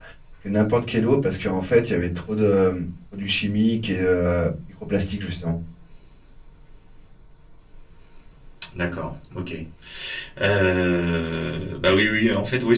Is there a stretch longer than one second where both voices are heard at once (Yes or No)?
No